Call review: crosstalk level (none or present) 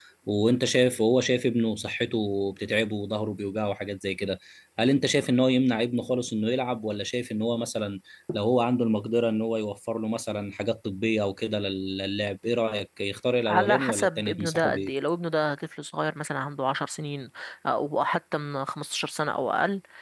present